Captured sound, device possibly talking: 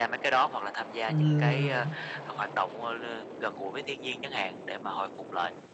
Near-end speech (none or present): present